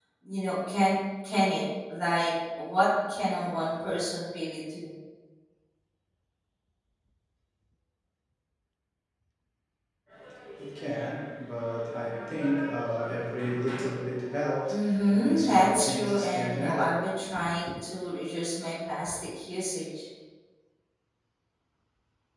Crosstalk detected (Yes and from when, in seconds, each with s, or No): Yes, from 14.7 s